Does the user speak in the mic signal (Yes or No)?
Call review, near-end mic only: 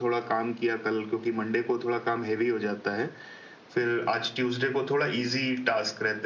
No